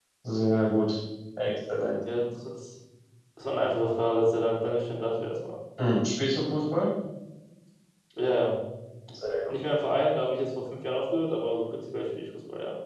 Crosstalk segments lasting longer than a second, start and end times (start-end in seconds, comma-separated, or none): none